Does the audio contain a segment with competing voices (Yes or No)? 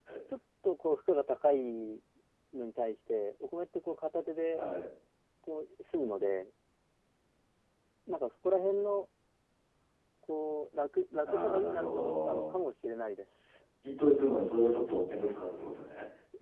Yes